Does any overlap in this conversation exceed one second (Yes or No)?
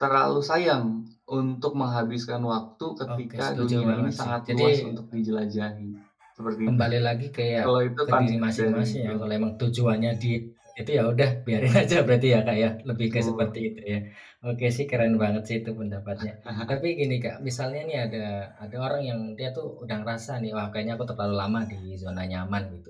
Yes